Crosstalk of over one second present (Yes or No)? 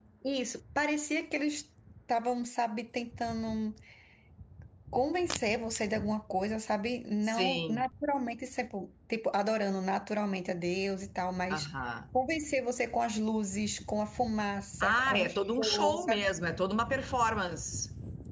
Yes